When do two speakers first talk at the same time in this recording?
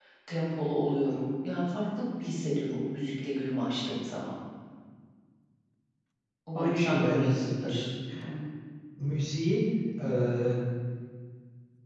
7 s

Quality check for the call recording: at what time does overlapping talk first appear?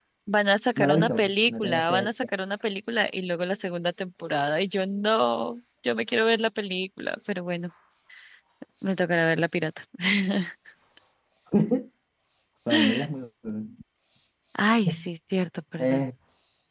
1 s

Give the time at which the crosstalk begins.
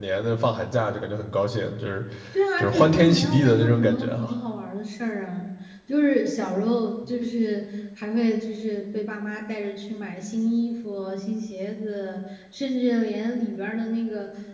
3 s

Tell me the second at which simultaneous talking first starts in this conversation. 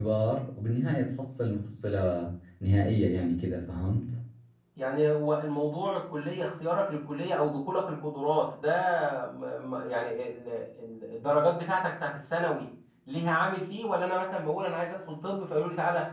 none

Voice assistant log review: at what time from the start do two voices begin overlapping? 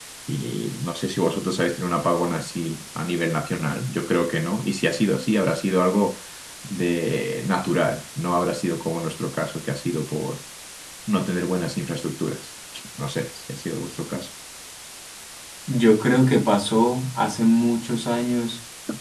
none

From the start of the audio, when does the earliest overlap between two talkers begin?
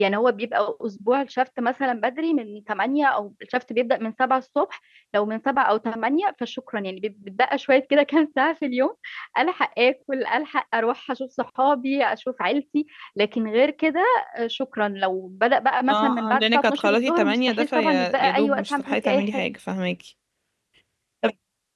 16 s

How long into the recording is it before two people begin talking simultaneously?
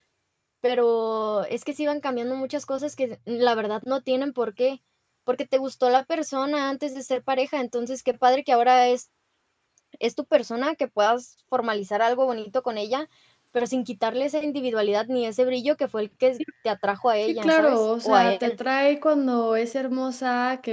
17 s

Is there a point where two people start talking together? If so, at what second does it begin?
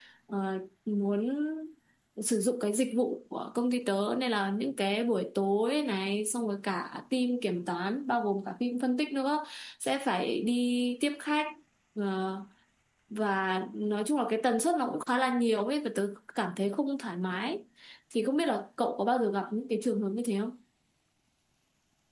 none

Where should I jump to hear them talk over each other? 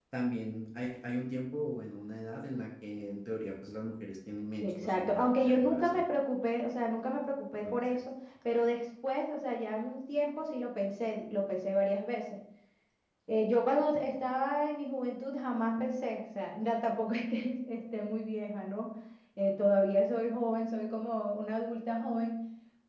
5 s

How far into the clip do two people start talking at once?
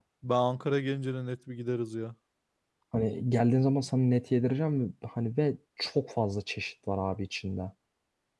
none

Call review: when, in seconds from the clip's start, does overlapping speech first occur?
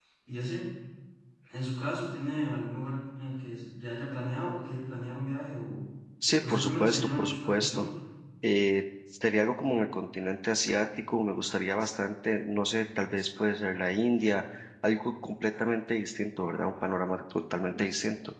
6 s

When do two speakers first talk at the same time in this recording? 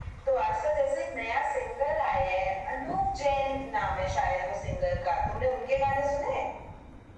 none

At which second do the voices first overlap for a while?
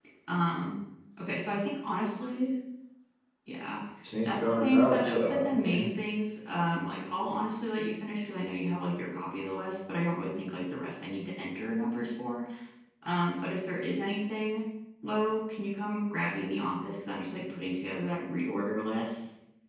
4 s

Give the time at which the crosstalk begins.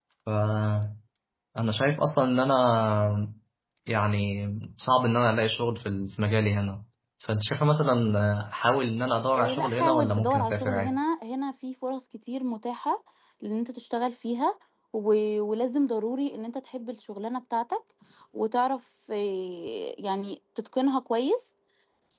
9 s

